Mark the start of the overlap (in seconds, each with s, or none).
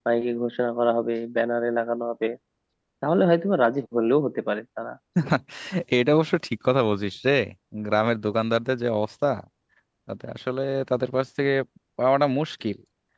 none